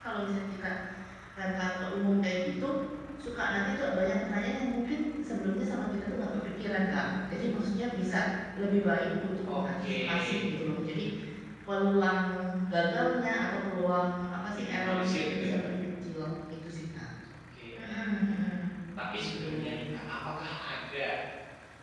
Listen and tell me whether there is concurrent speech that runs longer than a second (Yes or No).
Yes